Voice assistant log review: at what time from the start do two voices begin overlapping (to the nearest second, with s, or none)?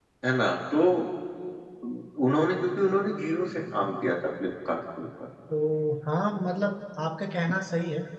none